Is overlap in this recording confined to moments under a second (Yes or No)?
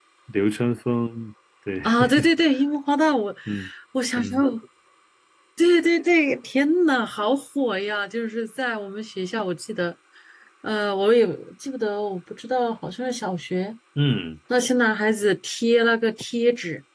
Yes